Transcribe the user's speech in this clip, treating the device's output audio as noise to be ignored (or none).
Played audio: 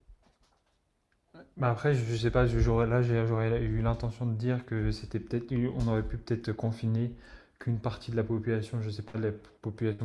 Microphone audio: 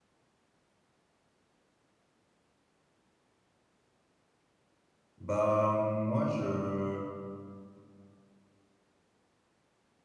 Bah, moi, je.